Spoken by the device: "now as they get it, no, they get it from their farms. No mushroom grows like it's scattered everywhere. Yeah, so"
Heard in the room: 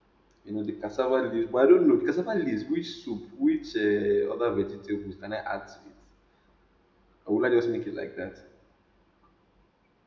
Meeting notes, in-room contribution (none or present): present